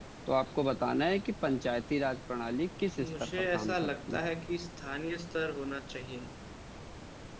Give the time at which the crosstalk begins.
3.0 s

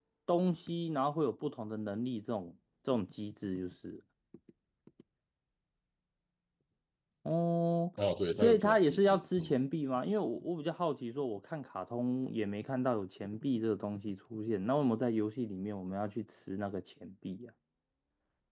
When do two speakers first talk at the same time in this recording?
8.4 s

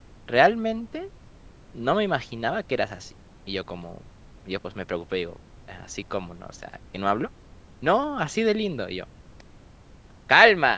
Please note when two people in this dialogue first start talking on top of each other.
none

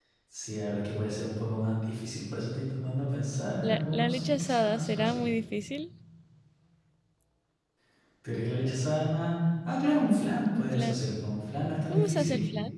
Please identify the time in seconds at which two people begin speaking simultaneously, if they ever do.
3.6 s

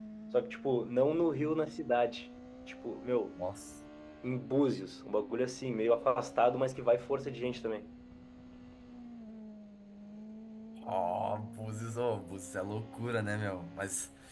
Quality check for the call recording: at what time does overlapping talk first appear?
none

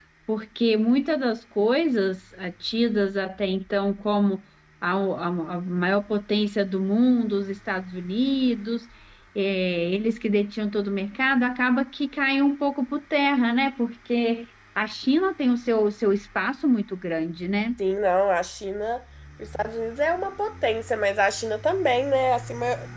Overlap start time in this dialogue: none

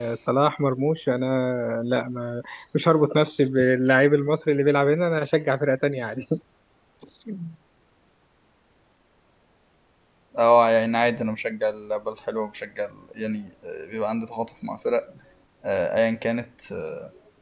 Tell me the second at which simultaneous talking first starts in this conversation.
none

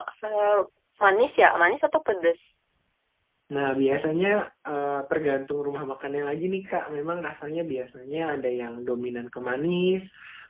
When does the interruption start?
none

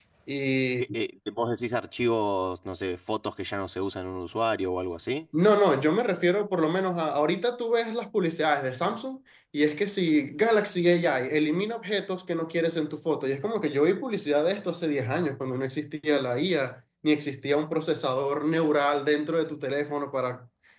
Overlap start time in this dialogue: none

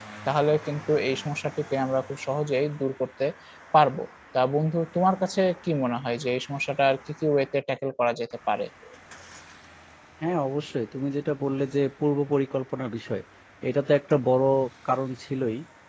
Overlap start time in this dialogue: none

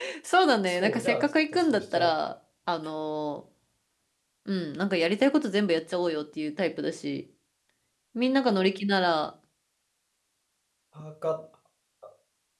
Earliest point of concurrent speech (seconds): 0.6 s

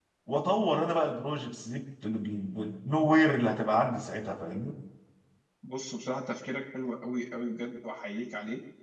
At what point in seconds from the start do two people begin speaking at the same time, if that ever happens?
none

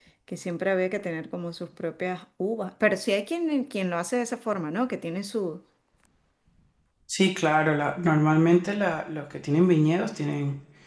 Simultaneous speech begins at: none

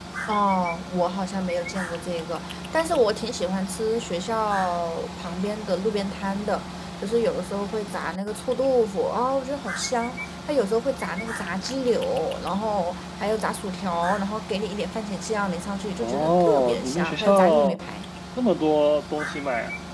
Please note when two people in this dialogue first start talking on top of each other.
16.0 s

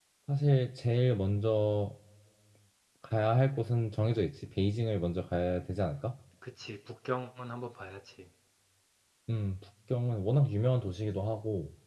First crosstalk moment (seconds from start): none

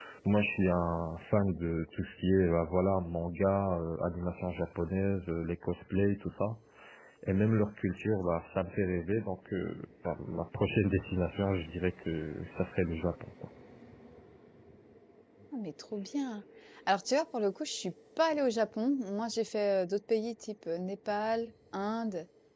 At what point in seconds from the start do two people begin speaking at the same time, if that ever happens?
none

